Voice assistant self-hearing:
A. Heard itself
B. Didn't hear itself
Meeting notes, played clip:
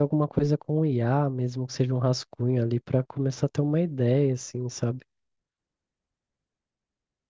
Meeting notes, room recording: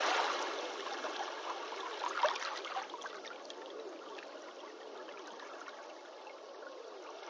B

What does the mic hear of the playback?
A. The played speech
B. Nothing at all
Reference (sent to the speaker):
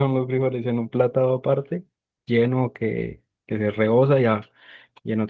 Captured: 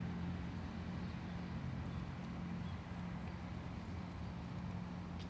B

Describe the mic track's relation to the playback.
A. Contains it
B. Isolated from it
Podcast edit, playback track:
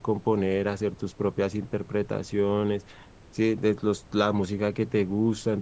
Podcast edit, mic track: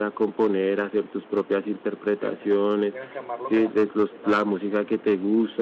A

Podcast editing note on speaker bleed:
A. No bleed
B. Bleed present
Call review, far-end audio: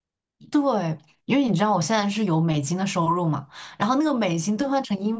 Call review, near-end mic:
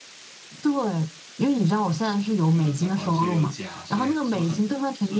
B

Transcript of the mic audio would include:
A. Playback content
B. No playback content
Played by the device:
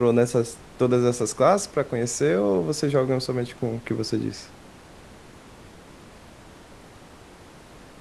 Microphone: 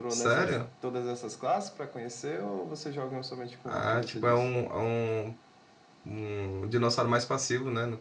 A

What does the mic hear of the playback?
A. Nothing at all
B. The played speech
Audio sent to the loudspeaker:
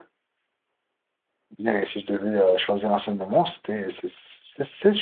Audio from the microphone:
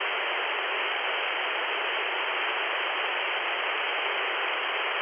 A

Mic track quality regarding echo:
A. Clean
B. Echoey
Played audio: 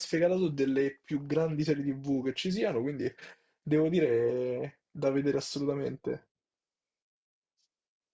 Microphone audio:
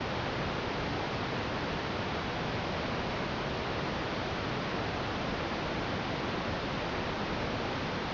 A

